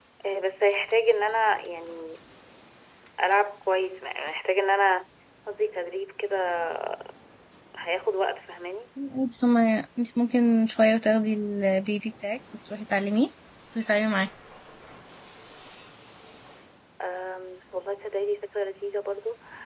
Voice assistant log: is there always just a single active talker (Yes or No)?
Yes